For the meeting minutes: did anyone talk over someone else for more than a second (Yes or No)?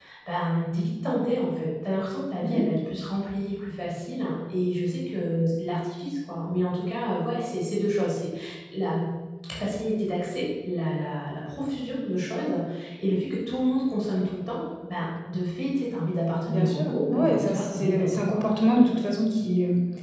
Yes